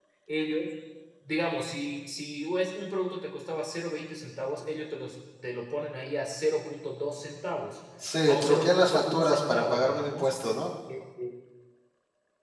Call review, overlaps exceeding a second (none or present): present